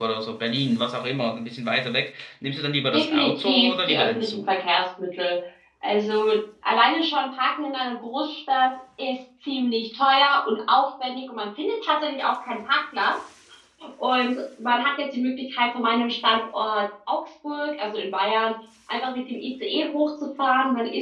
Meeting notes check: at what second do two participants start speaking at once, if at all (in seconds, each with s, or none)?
2.9 s